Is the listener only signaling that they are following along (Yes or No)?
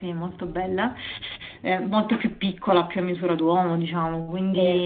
Yes